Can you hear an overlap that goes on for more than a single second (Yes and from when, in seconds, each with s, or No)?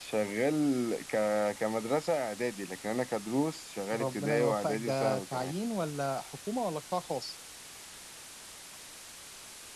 Yes, from 3.9 s